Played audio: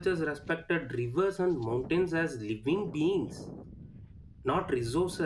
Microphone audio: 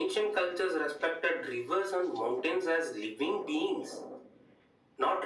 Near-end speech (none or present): none